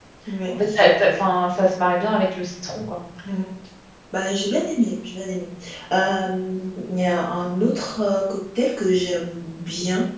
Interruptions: none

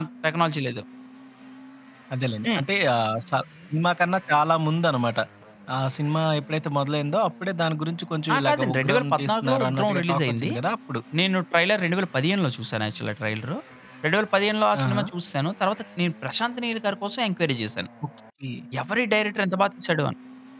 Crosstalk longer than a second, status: present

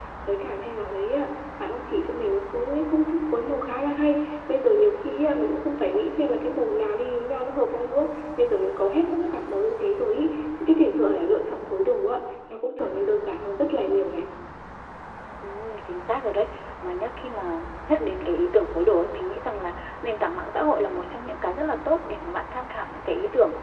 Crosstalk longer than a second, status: none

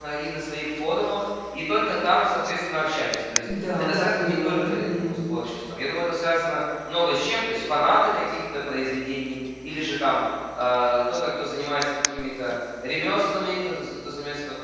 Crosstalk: present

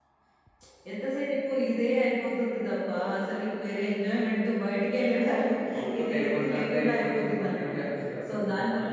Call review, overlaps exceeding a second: present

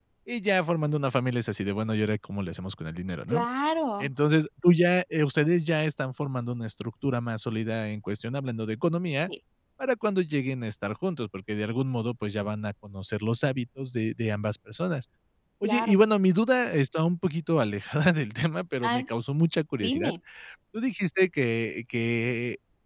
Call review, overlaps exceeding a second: none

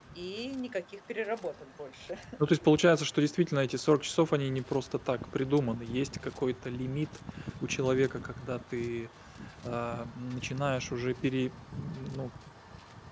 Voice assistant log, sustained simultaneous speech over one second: none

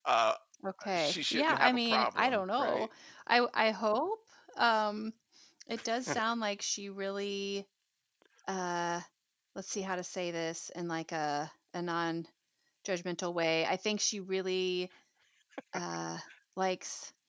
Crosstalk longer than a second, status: present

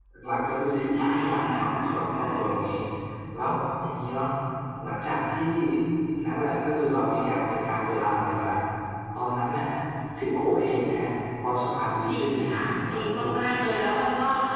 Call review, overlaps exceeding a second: present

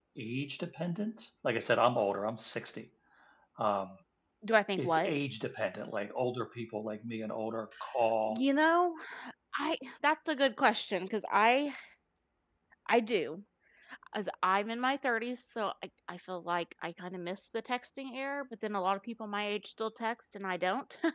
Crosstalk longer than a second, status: none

